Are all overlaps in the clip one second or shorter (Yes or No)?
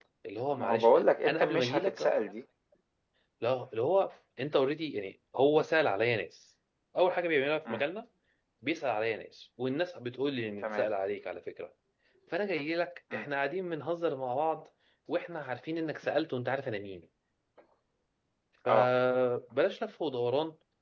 No